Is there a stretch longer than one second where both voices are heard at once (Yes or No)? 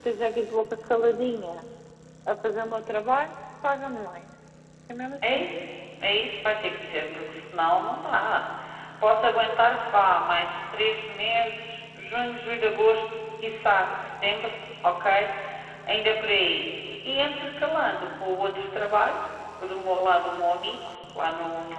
No